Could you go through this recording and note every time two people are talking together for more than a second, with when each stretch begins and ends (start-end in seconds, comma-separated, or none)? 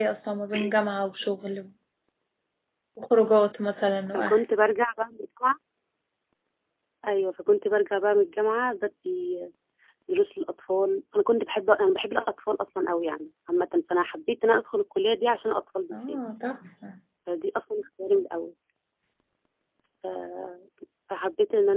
none